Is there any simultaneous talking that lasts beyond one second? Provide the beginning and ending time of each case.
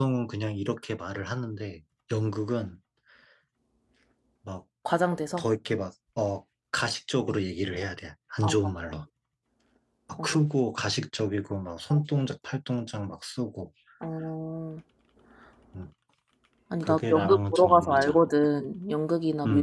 16.8-18.2

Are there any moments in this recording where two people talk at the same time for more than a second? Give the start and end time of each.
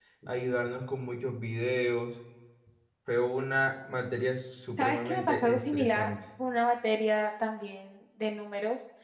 4.8-6.1

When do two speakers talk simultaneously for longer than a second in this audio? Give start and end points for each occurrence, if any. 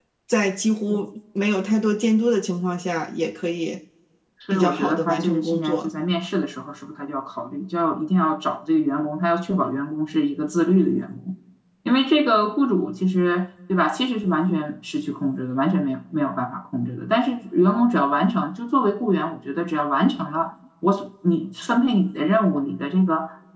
4.5-5.9

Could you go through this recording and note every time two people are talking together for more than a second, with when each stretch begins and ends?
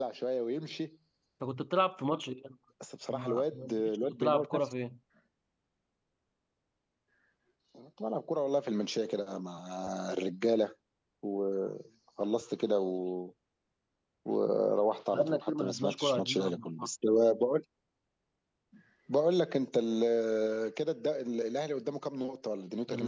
3.1-4.7, 15.1-16.9

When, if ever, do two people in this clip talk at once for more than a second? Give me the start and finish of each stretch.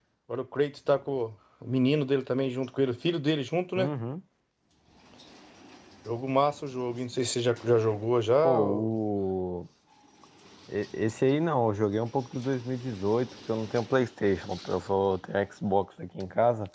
none

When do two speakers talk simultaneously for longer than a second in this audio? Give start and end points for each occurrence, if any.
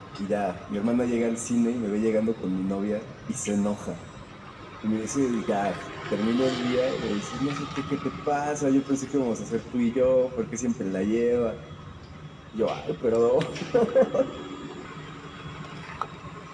none

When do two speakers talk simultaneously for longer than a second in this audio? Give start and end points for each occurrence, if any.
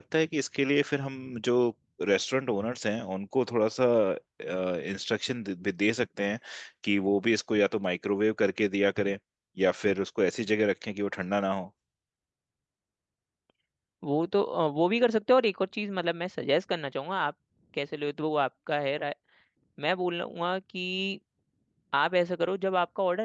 none

